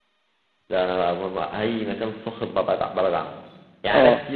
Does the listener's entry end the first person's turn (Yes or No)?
No